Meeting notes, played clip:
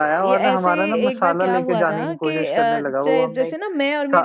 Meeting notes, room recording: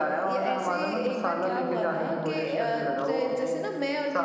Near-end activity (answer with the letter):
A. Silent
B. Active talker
A